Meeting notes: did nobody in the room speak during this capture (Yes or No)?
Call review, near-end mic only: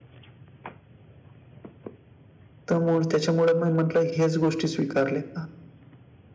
No